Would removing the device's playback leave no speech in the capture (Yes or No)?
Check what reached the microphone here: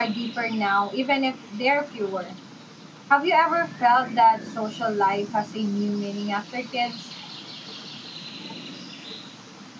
No